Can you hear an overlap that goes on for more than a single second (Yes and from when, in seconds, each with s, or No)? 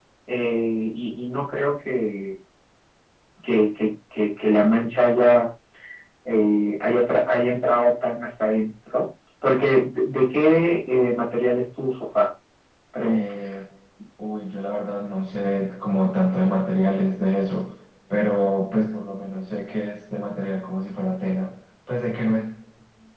No